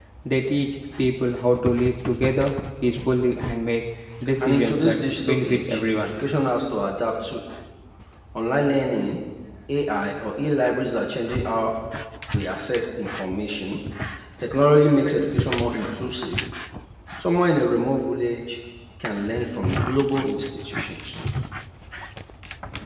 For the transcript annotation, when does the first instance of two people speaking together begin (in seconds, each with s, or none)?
4.4 s